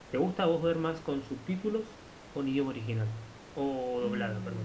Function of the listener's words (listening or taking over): taking over